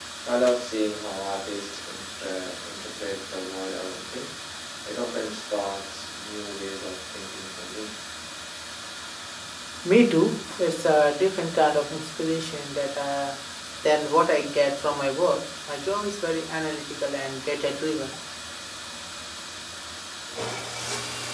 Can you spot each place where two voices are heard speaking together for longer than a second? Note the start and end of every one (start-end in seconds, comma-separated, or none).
none